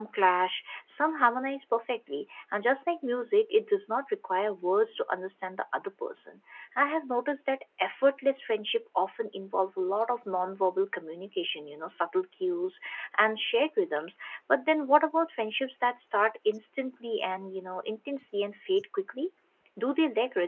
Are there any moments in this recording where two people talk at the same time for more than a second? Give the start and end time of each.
none

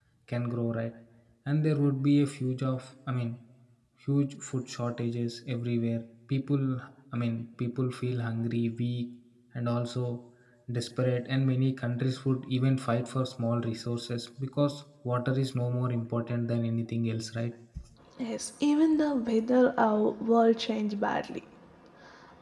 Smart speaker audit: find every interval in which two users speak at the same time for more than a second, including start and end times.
none

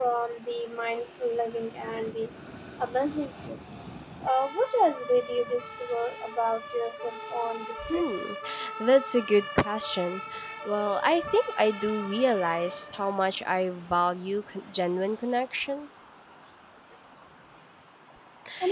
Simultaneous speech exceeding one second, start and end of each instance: none

